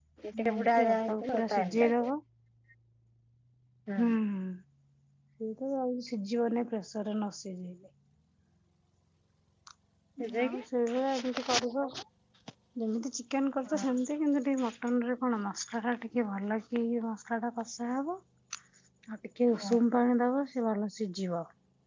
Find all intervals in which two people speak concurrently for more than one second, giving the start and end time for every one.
0.5-2.1

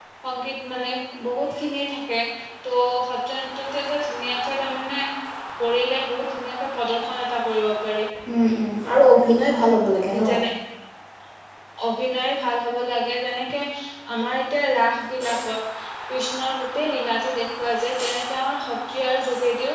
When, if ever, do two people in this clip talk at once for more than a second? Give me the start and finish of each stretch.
none

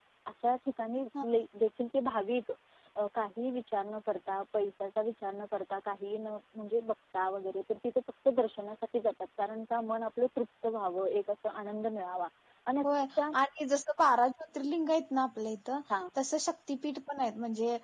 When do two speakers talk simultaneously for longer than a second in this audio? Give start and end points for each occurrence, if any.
none

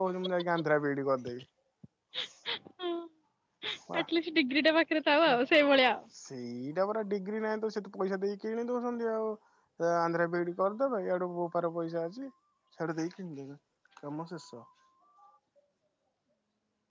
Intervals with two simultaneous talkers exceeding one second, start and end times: none

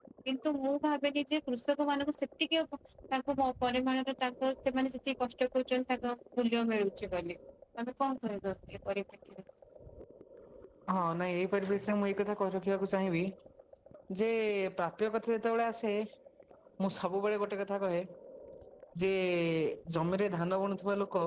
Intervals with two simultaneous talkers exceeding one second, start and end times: none

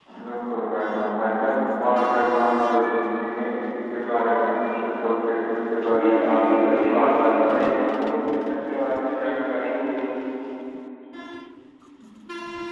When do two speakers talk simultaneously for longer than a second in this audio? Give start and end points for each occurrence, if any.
5.9-8.1

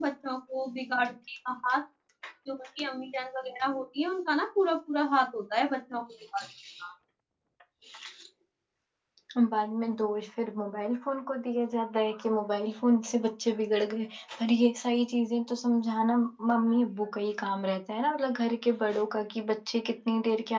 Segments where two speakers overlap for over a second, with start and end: none

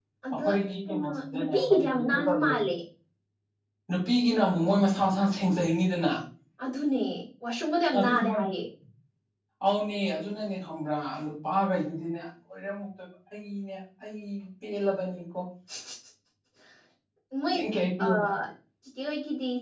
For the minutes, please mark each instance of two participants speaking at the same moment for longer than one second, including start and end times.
0.9-2.5

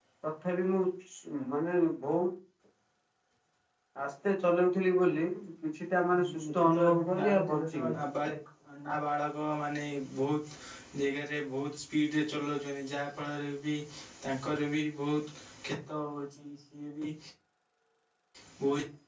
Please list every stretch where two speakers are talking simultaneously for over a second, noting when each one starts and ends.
6.1-8.1

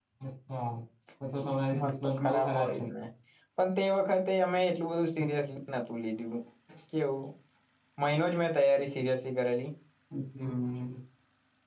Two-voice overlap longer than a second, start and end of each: 1.4-2.8

